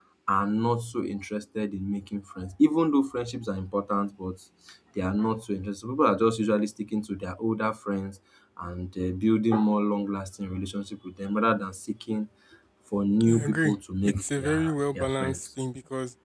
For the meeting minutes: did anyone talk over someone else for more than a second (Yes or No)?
Yes